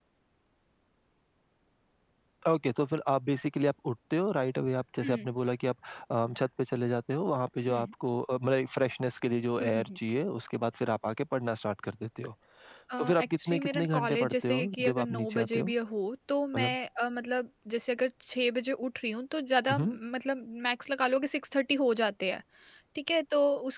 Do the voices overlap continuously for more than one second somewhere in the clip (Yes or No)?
Yes